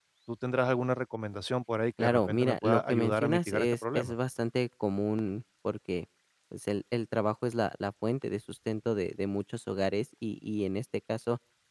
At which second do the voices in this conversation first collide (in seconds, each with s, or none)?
2.0 s